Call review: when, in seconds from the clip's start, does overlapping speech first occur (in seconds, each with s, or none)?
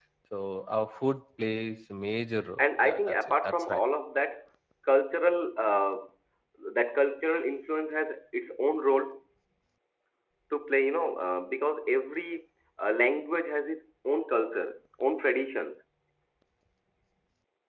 2.6 s